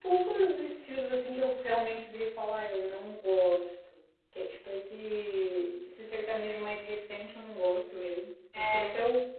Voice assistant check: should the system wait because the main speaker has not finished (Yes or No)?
Yes